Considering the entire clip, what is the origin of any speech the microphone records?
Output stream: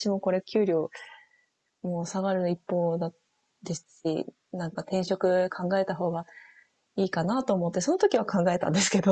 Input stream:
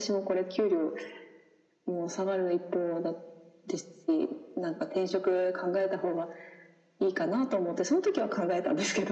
echo only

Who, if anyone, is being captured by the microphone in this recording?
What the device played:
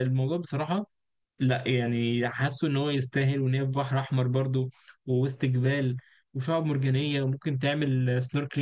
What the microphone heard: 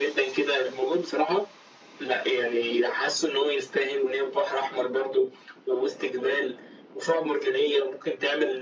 echo only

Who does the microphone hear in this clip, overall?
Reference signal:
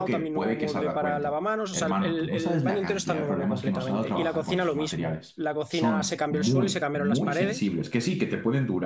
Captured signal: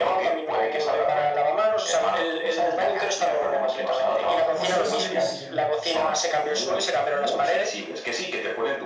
both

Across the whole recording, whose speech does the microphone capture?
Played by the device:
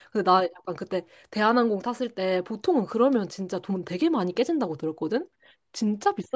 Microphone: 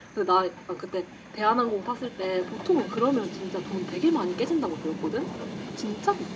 echo only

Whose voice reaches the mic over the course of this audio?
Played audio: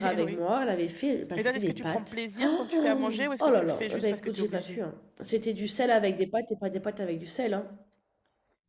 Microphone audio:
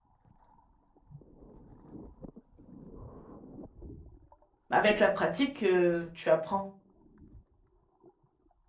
user only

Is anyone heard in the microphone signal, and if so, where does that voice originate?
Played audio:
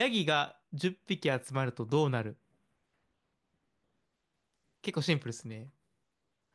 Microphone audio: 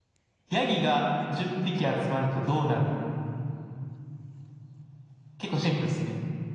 echo only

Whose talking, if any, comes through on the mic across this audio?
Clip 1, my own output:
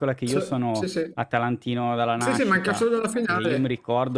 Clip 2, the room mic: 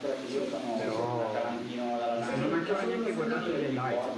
both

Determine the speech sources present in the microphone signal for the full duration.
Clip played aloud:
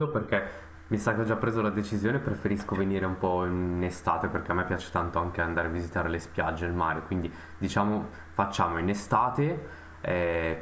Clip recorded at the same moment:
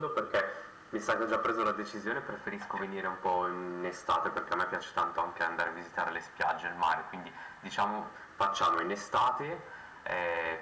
echo only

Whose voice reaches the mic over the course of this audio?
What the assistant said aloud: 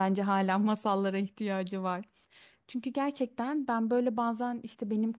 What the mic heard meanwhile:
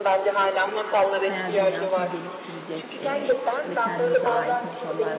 both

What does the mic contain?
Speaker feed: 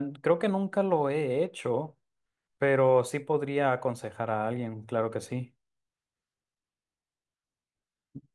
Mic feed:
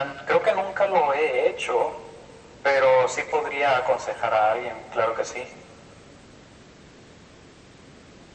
echo only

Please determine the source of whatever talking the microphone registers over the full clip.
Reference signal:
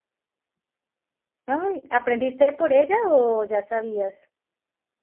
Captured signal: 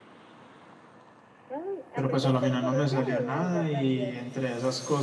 both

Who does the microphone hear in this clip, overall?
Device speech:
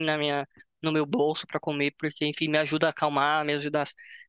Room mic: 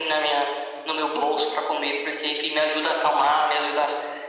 echo only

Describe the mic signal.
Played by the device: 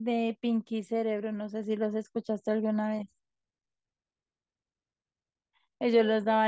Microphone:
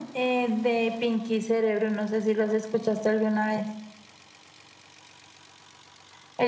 echo only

